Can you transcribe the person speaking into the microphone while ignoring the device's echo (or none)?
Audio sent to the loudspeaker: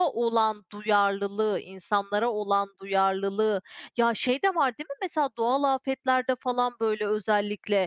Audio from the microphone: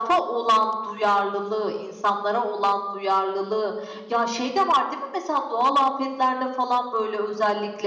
none